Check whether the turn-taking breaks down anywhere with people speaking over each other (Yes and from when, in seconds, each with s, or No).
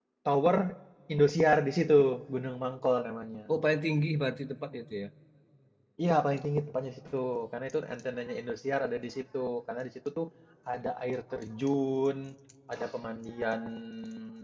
No